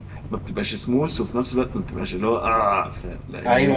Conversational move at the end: taking over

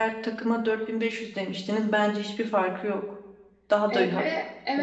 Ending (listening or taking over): taking over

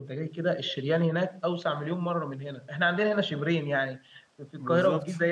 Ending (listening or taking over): listening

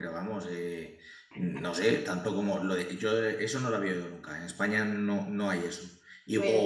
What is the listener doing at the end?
listening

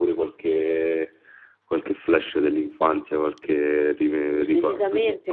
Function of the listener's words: taking over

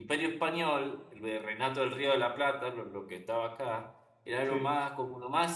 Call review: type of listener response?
listening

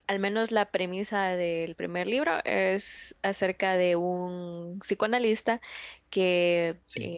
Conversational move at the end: listening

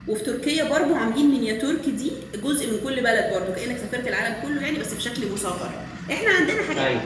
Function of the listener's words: listening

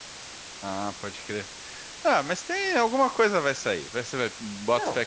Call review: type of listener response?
listening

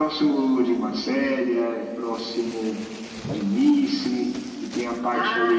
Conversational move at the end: taking over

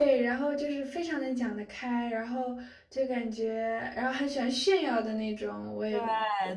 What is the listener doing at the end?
taking over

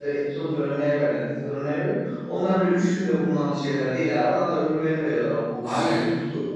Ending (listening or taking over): taking over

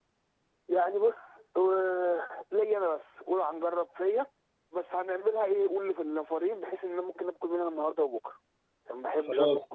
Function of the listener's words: taking over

